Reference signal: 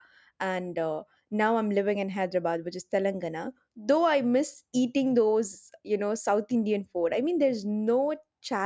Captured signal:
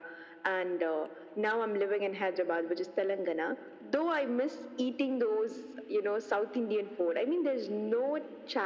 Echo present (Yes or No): Yes